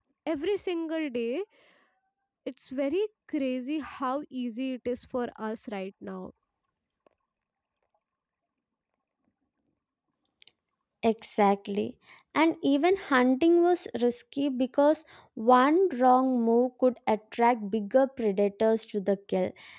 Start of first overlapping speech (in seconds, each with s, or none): none